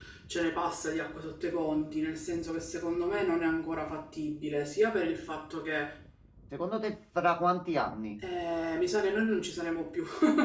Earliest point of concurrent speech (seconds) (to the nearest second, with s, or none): none